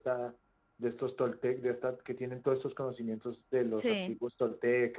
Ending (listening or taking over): listening